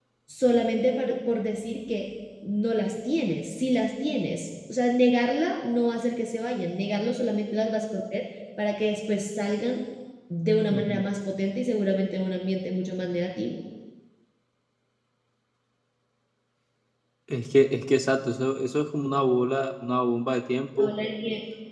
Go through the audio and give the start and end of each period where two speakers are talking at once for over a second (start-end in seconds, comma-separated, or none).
none